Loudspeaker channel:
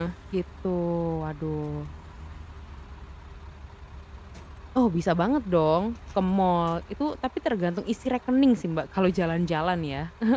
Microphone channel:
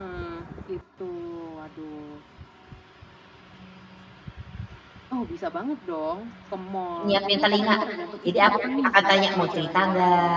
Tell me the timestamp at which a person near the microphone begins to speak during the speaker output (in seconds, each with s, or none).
7.0 s